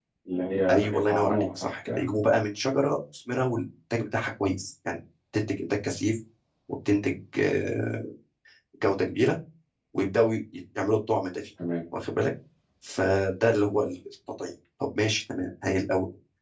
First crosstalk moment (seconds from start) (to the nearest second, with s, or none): 1 s